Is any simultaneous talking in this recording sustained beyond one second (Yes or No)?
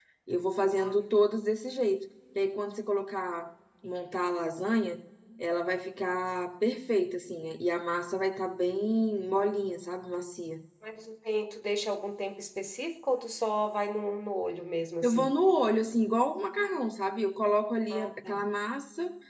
No